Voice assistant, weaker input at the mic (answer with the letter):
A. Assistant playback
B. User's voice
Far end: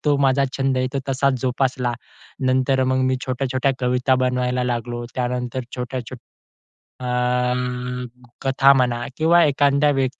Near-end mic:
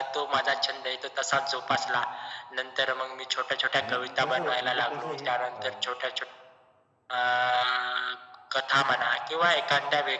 B